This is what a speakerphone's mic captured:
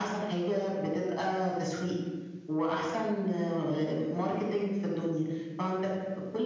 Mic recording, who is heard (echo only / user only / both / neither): echo only